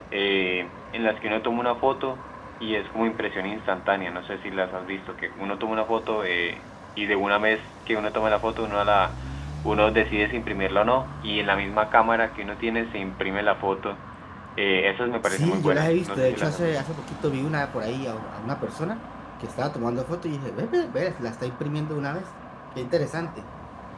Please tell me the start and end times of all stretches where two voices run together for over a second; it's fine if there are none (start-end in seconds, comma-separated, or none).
15.2-16.8